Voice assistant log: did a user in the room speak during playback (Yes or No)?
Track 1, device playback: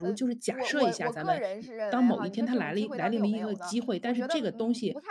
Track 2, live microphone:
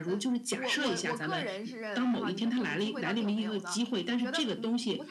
No